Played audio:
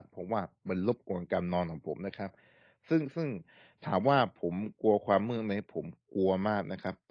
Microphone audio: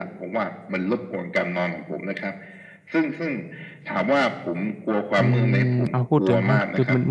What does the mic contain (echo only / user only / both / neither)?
both